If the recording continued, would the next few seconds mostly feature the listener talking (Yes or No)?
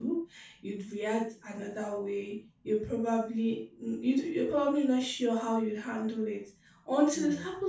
No